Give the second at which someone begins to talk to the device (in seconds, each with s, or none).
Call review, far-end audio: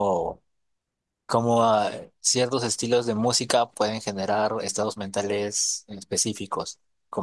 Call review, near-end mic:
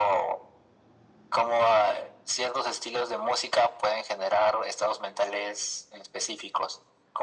none